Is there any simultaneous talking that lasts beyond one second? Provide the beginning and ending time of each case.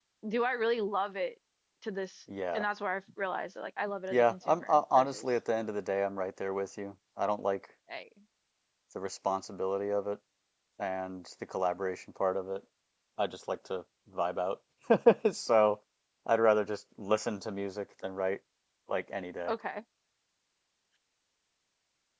4.1-5.3

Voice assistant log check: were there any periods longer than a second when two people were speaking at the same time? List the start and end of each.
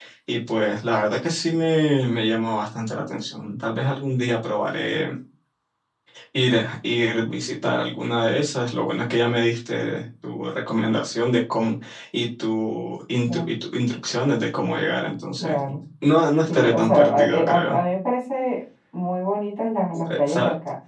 16.5-17.8

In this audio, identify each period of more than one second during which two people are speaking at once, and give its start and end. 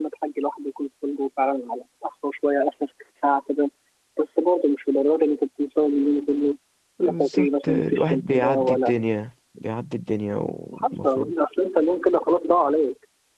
7.0-9.0

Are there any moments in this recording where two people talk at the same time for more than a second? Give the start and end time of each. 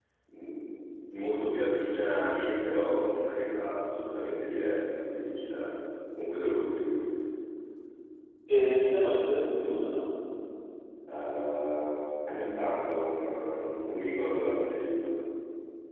none

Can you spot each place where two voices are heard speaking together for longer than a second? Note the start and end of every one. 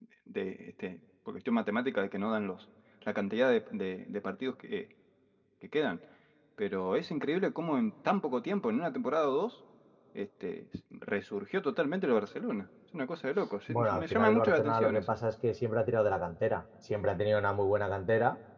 13.7-15.0

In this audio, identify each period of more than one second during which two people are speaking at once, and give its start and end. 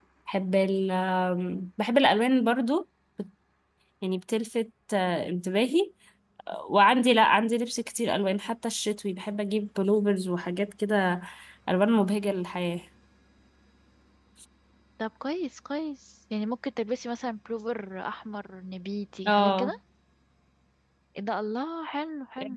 none

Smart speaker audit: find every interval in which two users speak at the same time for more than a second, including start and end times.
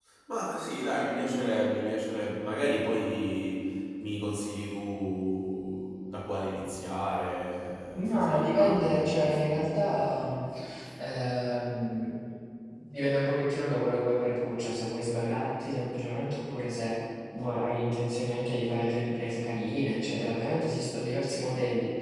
8.0-10.3

